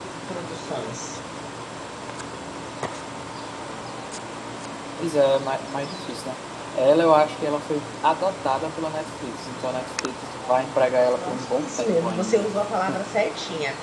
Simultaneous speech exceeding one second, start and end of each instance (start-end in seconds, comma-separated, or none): 11.2-12.4